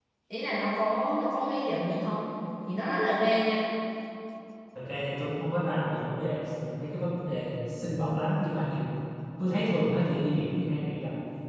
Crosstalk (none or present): none